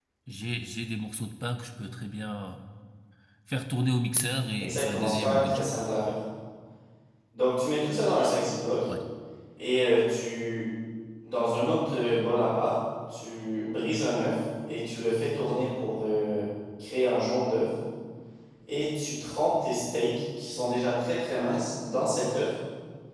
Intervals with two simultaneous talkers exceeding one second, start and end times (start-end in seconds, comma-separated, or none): 4.6-5.8